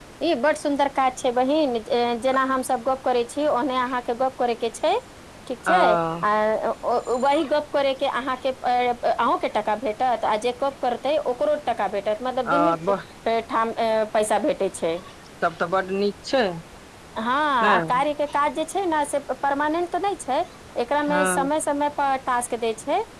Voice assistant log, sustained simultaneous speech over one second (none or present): none